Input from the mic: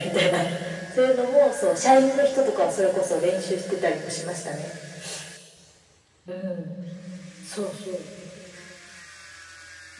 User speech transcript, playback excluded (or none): none